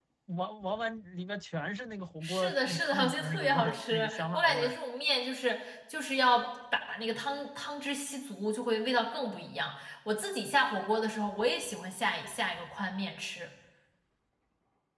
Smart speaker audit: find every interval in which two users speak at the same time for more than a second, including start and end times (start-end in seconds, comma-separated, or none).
2.2-4.8